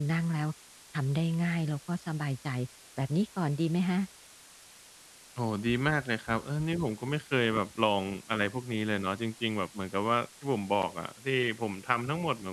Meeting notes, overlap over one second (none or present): none